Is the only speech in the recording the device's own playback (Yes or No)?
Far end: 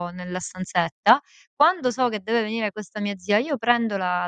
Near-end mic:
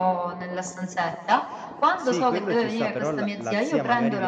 No